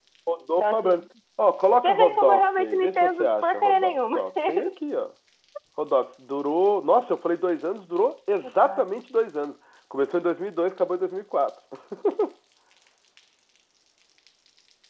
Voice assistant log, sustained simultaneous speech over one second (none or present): present